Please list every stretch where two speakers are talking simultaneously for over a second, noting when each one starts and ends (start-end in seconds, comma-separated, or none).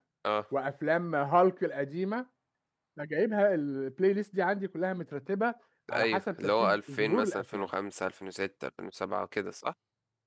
6.0-7.6